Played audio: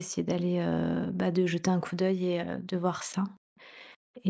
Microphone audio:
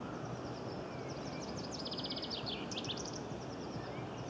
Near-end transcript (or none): none